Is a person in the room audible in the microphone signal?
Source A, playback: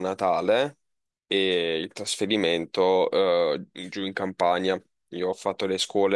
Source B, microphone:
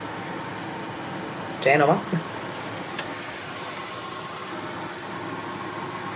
Yes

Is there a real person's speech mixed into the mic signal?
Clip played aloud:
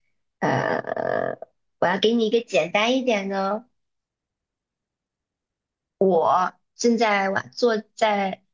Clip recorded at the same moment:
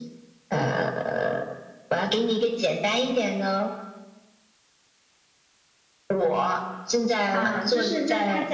Yes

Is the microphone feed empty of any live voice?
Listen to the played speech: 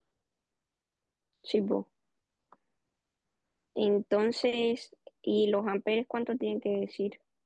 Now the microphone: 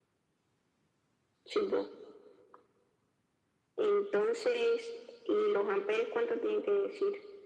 Yes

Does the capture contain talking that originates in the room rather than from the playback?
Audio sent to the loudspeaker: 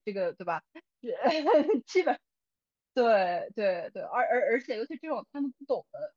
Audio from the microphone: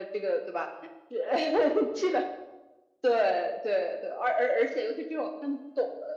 No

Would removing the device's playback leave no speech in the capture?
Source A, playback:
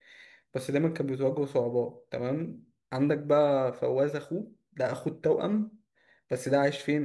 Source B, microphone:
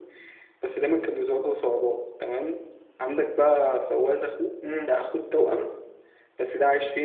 No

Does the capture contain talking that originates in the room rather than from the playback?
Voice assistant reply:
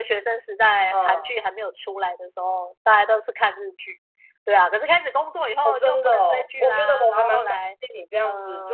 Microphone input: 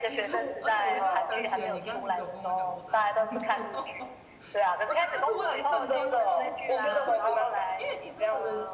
Yes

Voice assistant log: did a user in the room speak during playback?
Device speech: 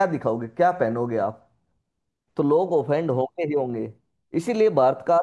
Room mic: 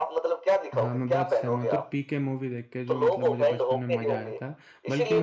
Yes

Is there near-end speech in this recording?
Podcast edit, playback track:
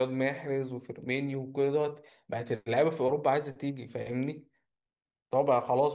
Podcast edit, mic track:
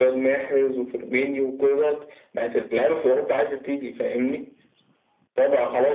No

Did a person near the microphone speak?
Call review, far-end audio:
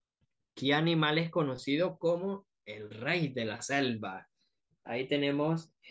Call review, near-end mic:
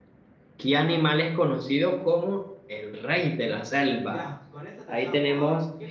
Yes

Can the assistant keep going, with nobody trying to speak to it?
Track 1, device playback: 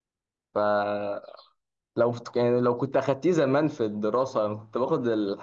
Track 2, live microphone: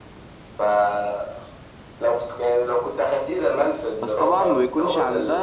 No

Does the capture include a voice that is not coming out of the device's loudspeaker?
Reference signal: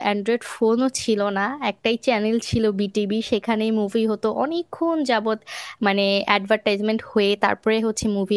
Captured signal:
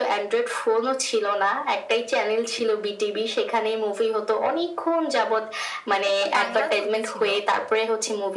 Yes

